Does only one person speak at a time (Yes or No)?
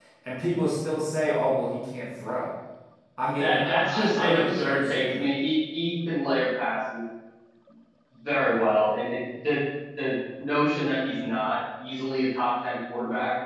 No